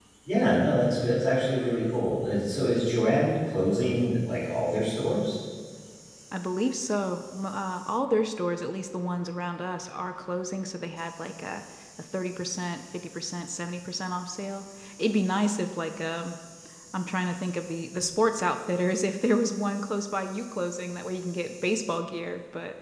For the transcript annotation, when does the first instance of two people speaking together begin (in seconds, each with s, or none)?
none